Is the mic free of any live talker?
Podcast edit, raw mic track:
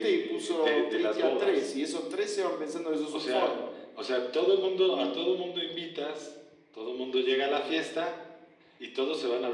Yes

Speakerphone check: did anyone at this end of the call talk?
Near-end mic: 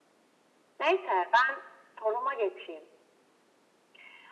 No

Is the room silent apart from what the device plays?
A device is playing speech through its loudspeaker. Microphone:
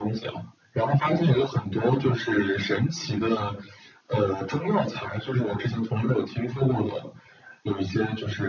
Yes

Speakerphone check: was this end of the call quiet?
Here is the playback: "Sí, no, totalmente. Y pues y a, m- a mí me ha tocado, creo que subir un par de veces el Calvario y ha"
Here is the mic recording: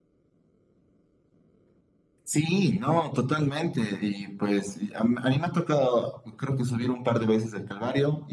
Yes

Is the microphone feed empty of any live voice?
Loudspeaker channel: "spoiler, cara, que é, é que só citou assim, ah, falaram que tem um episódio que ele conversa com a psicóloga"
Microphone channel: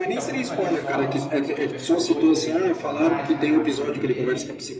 No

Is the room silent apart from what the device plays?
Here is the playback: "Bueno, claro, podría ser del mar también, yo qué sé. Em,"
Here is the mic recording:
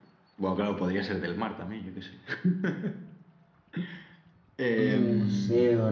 No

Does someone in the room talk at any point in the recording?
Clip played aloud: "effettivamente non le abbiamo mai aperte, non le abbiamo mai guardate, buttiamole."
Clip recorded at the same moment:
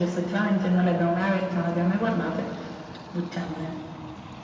No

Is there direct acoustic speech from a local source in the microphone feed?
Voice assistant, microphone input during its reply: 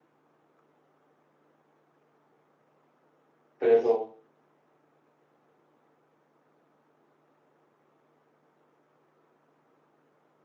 Yes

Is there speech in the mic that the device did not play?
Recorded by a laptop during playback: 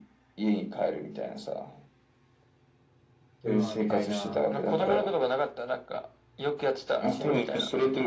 Yes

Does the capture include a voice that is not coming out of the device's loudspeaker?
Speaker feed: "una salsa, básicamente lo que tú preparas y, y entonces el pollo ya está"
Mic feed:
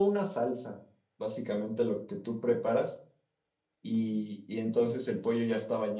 No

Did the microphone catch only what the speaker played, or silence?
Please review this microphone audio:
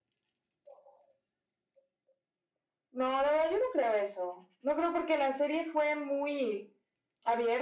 Yes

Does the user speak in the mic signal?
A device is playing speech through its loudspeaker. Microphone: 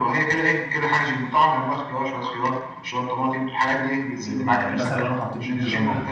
Yes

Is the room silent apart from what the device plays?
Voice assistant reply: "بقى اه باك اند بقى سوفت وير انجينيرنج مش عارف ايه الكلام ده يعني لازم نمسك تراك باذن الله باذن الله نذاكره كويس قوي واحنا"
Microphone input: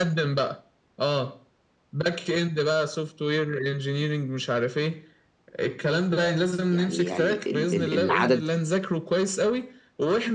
No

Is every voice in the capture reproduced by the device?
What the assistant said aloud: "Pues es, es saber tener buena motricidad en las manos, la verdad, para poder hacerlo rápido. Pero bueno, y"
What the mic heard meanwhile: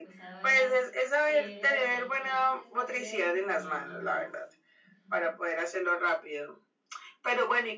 No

